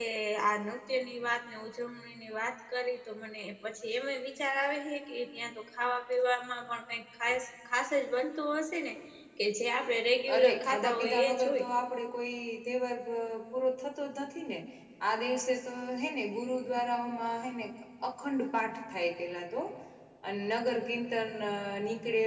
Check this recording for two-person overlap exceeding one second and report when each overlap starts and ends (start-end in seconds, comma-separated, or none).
10.4-11.7